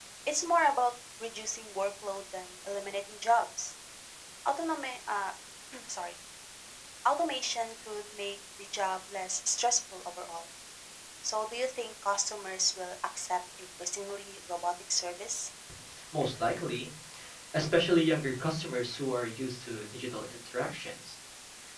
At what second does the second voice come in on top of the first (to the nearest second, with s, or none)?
none